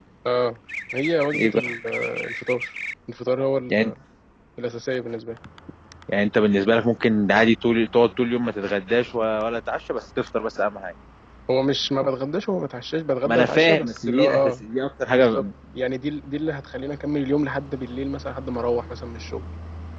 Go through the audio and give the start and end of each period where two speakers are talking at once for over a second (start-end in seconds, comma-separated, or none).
13.2-14.6